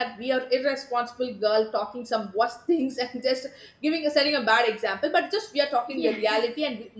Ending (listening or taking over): listening